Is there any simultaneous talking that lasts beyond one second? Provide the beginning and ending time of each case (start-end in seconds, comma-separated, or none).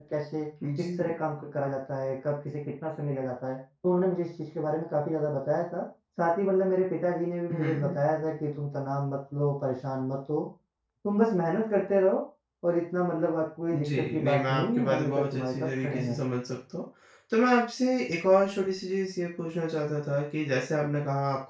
13.7-16.2